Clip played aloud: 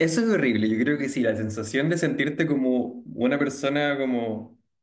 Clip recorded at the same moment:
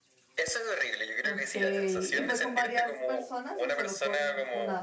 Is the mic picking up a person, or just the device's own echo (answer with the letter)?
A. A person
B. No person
A